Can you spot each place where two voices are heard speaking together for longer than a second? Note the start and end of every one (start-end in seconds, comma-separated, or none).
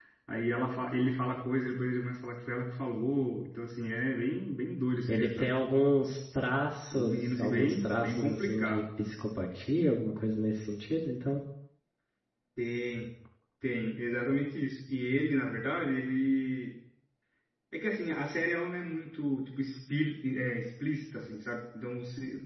6.9-8.8